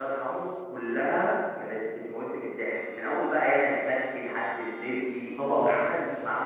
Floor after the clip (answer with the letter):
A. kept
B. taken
A